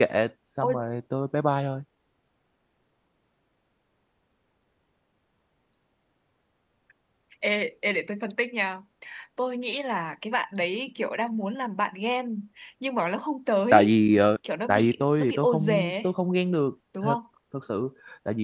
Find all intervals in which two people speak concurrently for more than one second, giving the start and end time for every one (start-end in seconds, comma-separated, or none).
14.7-16.1